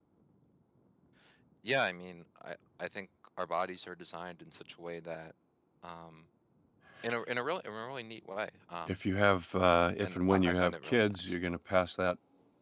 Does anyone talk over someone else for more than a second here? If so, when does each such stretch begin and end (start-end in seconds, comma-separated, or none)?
10.0-11.4